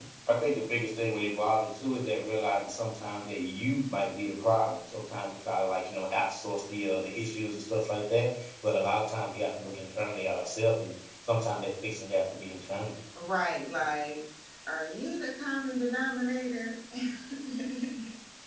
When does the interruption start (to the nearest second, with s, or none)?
none